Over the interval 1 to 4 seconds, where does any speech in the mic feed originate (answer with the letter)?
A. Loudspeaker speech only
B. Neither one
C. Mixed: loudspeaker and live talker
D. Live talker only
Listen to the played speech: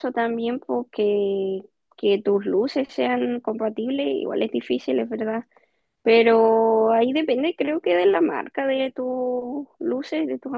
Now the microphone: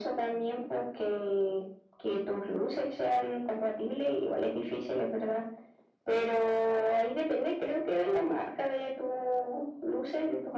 A